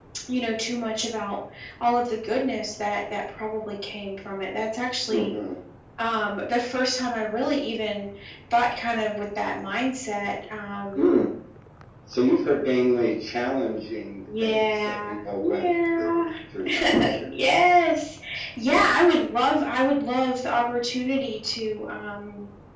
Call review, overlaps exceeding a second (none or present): present